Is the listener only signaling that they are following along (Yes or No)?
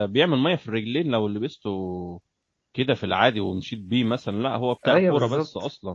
No